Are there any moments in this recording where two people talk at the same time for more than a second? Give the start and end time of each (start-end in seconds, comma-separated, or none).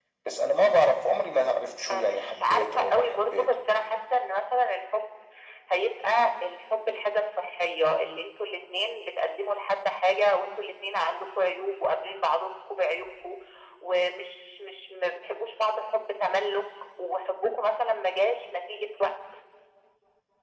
1.9-3.6